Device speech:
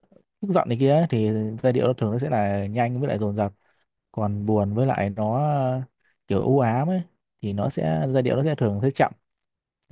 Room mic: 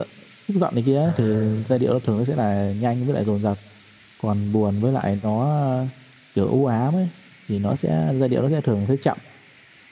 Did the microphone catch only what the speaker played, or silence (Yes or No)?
No